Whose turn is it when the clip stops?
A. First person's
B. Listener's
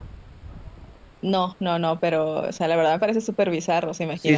B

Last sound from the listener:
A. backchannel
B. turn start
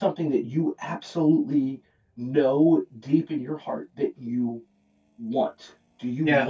B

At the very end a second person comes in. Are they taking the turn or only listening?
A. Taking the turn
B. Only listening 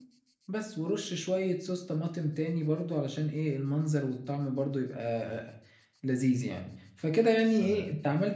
B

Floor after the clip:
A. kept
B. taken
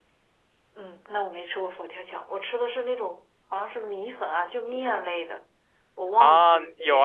B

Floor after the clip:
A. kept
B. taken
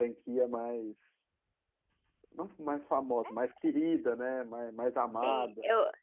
B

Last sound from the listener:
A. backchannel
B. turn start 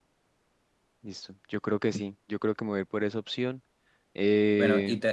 B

